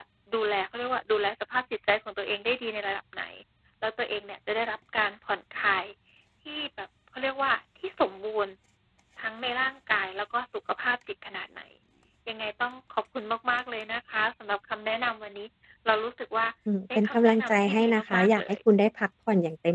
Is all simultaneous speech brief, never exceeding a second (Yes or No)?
No